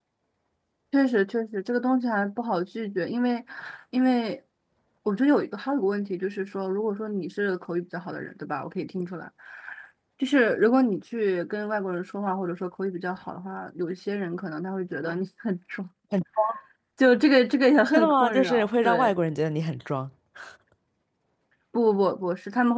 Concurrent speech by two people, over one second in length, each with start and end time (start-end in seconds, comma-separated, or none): 17.9-19.1